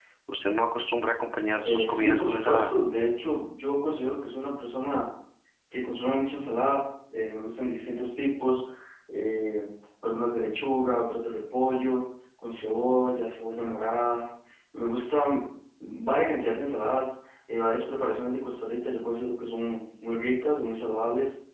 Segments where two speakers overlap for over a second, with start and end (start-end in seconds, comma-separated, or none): 1.6-2.9